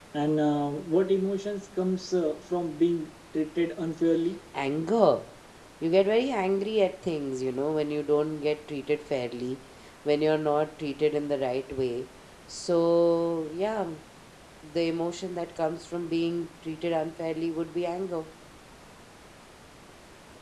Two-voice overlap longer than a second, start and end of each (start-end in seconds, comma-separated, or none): none